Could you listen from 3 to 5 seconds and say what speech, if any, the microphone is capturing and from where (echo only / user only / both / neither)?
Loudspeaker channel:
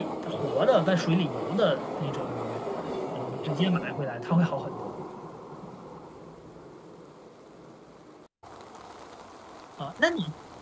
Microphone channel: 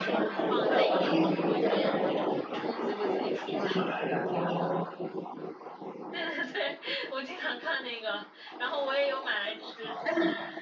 both